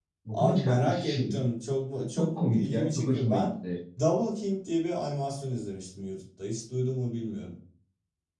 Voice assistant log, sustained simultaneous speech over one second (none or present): present